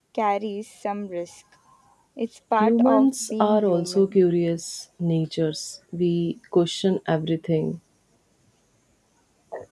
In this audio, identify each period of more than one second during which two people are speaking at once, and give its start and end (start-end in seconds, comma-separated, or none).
2.6-4.1